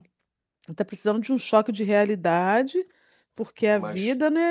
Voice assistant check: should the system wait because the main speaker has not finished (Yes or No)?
Yes